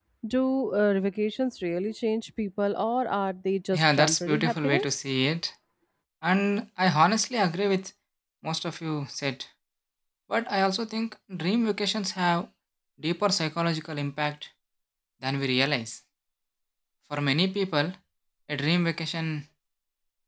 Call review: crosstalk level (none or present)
present